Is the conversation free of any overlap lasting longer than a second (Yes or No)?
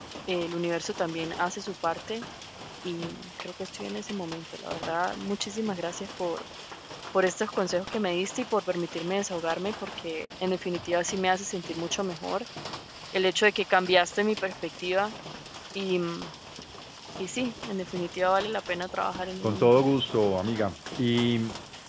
Yes